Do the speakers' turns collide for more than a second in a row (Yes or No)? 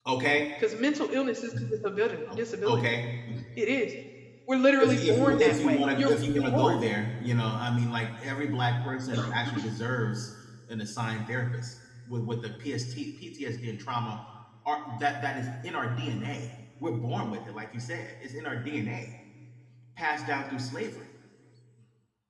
Yes